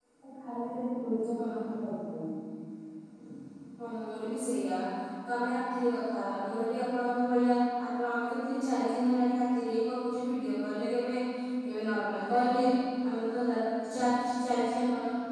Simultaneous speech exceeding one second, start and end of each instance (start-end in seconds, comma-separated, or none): none